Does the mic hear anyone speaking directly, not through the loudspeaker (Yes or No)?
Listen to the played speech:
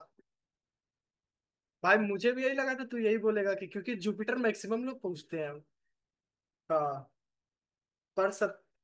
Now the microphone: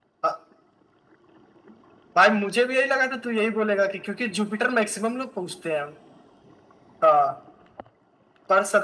No